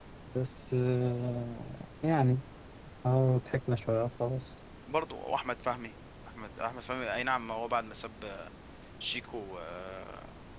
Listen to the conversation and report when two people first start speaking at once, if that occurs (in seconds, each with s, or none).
none